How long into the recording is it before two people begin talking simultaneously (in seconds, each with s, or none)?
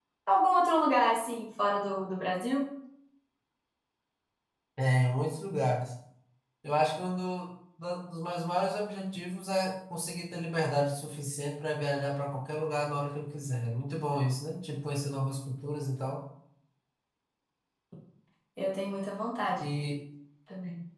none